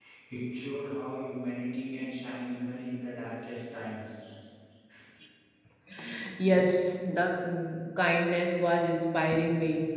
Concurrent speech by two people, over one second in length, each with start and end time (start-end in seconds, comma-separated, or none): none